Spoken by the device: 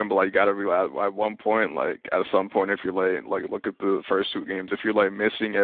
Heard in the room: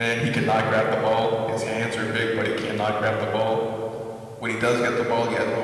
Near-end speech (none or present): present